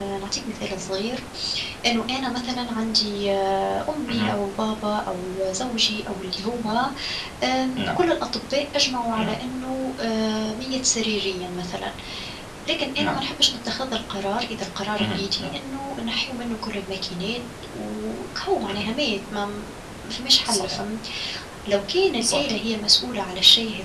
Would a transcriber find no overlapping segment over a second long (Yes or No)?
Yes